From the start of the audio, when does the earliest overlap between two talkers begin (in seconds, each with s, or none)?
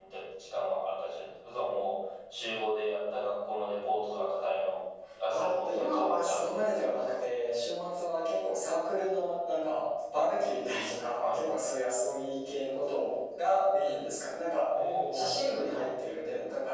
5.3 s